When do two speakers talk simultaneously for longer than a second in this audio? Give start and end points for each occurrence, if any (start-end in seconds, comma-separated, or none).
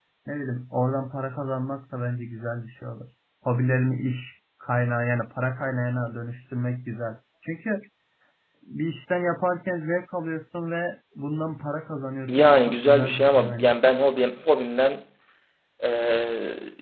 12.3-13.7